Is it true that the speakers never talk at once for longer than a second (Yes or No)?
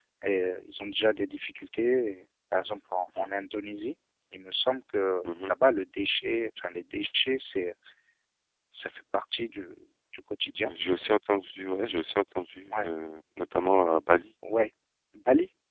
Yes